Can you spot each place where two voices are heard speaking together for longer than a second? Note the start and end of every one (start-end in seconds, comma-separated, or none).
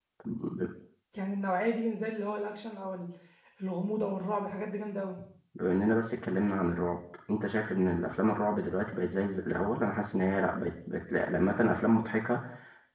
none